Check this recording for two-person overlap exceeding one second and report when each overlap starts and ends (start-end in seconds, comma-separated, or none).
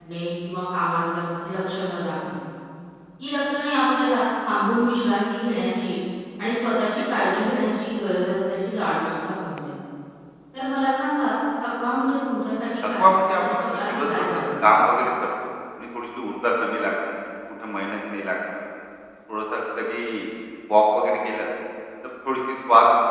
12.9-14.5